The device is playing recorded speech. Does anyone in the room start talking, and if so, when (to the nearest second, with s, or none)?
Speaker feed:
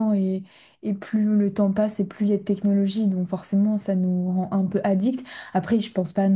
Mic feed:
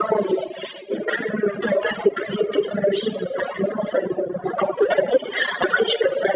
none